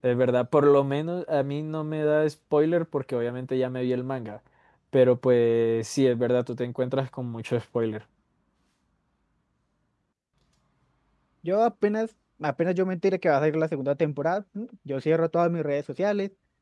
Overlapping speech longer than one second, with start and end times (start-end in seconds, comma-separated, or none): none